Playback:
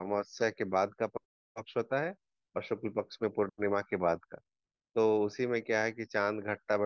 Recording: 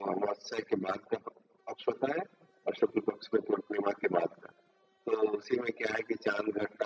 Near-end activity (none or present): none